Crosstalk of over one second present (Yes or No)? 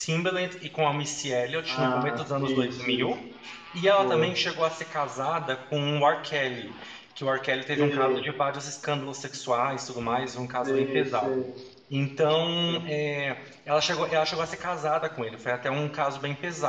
Yes